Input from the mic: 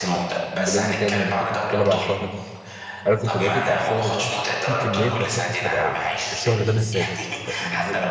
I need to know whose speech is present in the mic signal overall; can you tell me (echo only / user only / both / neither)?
both